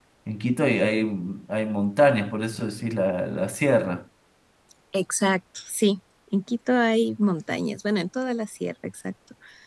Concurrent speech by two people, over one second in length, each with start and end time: none

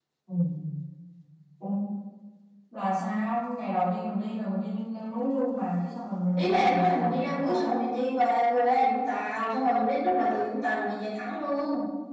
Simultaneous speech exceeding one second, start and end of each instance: 6.4-7.8

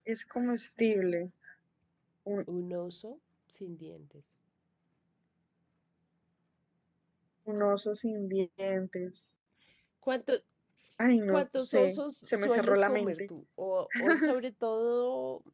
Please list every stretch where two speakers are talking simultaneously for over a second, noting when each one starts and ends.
11.3-13.1

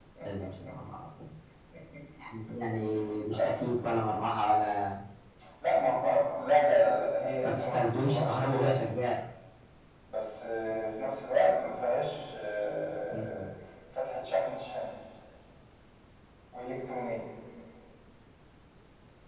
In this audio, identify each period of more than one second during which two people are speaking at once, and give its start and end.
7.4-8.8

